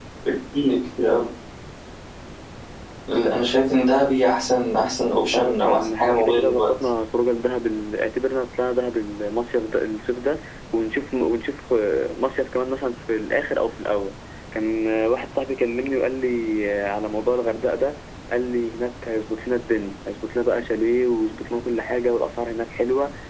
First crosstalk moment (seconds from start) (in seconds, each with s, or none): 5.3 s